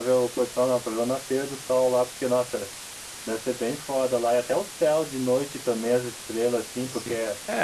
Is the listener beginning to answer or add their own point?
Yes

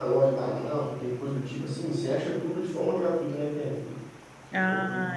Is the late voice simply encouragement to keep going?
No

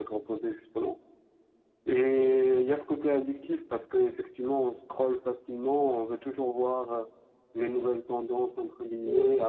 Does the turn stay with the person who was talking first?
Yes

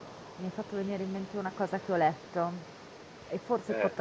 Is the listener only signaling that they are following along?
Yes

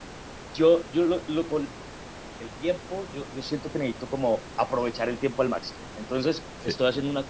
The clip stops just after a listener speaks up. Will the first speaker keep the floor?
Yes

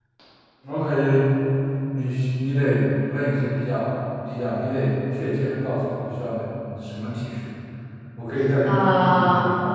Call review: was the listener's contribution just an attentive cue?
Yes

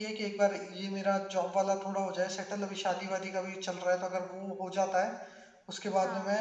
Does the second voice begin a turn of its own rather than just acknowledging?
No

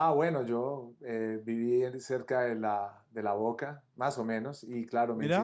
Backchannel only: Yes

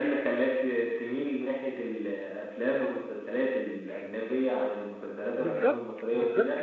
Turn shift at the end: Yes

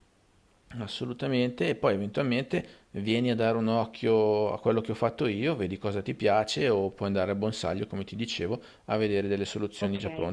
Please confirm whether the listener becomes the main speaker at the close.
Yes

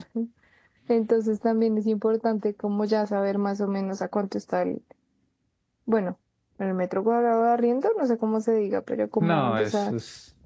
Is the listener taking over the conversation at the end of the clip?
Yes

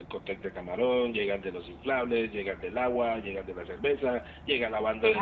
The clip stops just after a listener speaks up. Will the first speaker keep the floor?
Yes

